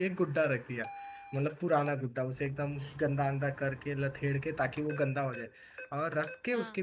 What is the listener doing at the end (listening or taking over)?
listening